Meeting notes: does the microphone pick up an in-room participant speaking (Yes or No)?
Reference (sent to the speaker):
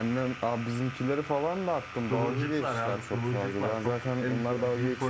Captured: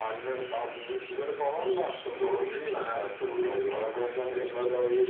No